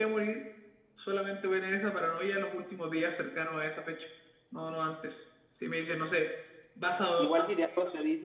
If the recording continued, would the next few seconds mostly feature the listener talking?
Yes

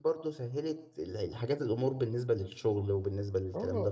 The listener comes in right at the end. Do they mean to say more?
Yes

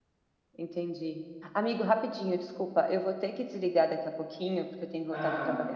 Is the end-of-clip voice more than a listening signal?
No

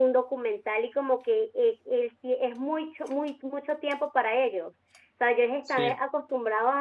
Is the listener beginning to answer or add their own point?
No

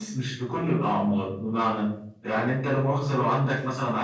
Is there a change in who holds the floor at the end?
No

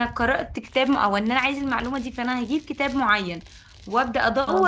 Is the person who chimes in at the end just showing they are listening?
Yes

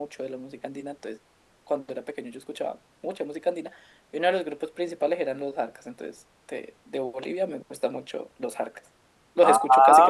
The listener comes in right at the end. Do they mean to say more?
Yes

